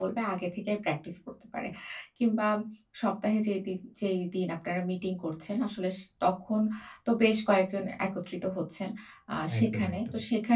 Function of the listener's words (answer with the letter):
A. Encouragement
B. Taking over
A